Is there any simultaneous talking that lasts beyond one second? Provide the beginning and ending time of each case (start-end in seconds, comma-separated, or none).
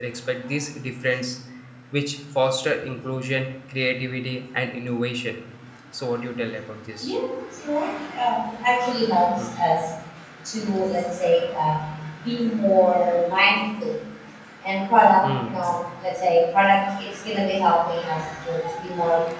none